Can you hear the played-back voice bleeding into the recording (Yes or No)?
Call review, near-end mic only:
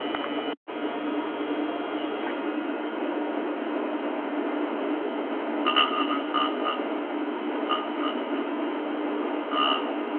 No